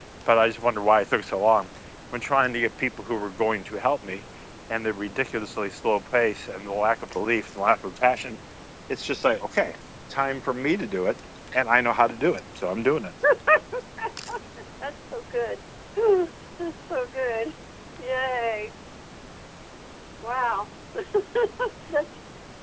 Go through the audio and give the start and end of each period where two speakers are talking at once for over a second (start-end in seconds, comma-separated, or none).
none